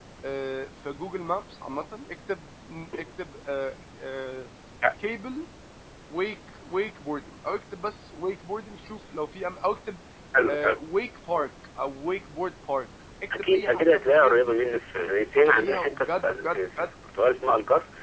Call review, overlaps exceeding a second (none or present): present